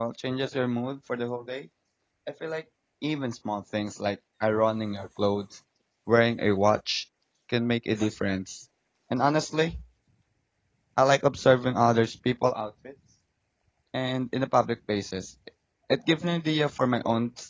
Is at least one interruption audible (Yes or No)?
No